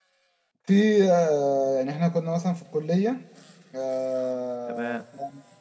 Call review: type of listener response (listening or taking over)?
listening